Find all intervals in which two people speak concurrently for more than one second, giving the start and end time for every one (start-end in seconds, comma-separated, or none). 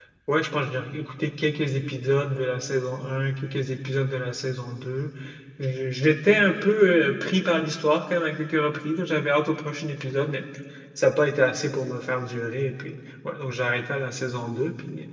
none